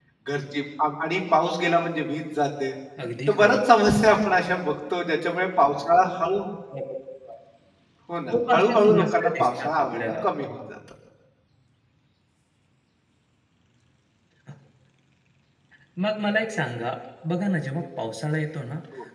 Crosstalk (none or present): present